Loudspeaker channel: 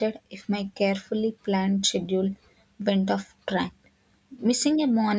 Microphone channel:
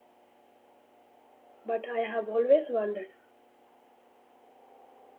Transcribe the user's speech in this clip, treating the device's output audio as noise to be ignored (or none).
but I have always wondered